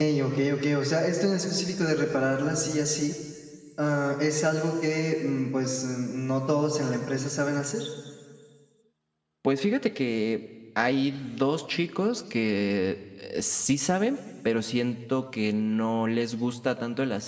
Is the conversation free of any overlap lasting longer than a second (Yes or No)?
Yes